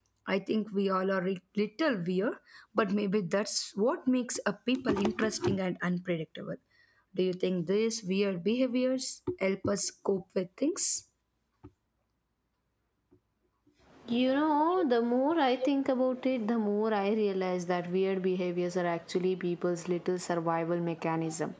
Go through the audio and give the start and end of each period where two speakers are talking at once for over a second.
none

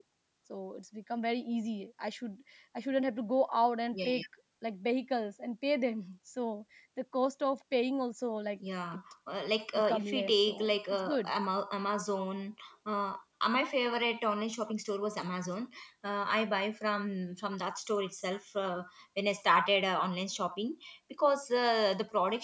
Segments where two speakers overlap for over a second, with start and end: 9.8-11.3

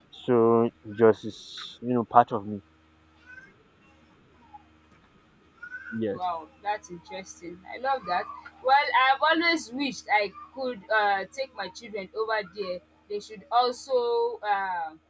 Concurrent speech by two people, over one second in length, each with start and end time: none

